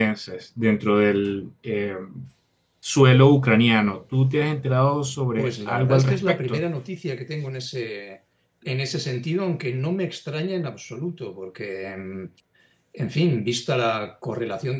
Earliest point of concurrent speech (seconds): 5 s

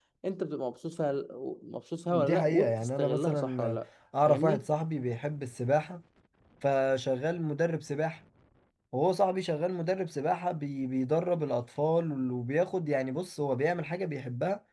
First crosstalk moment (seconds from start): 2 s

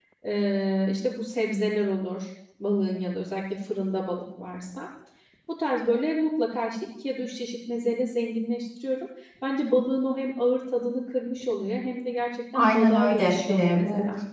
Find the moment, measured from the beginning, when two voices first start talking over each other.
13 s

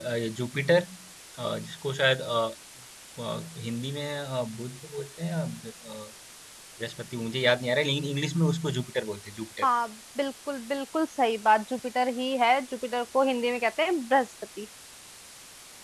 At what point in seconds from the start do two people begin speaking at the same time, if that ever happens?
none

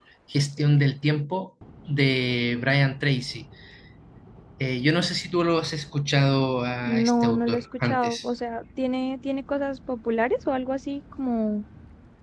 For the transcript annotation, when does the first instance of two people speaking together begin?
7 s

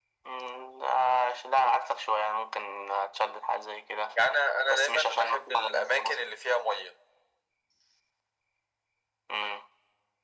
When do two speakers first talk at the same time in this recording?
5 s

